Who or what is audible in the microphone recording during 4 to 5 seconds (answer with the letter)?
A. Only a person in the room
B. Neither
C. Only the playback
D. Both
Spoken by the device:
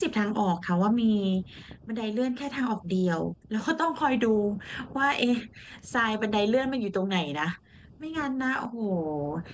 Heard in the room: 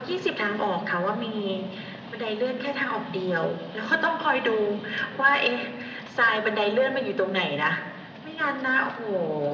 C